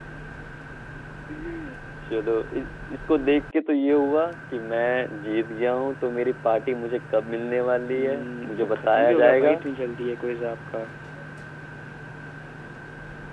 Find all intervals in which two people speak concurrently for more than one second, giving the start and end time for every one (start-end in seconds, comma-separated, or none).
7.9-9.6